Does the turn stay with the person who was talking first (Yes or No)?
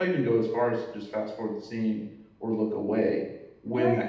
No